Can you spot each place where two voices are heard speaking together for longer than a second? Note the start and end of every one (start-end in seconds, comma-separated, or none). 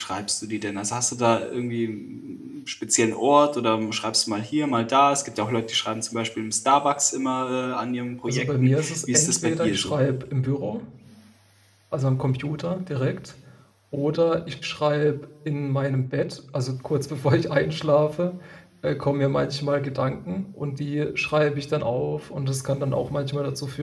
8.3-9.9